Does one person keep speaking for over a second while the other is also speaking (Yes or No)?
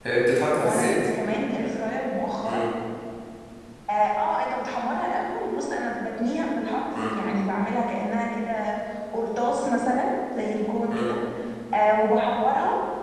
No